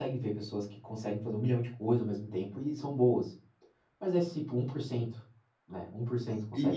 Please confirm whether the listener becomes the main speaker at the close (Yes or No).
Yes